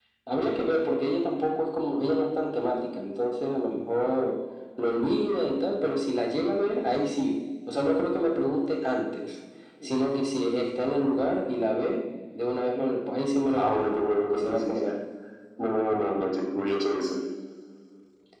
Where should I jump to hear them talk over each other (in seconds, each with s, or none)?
13.4 s